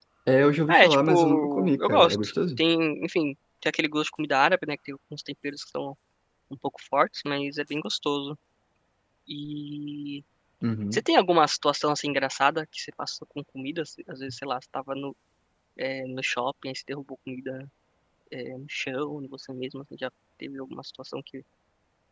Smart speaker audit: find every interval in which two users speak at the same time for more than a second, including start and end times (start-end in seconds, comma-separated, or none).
0.7-2.6